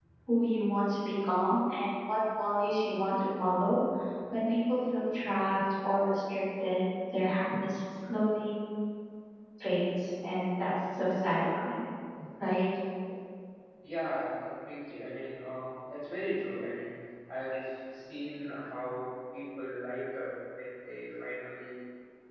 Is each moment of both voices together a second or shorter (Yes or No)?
Yes